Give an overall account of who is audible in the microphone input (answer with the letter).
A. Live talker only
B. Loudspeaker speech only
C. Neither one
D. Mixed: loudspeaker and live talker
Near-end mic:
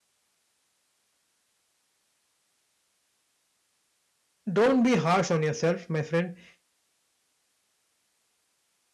A